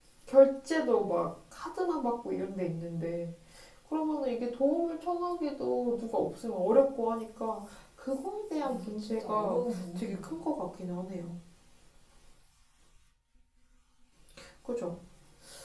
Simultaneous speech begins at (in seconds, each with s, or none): 8.6 s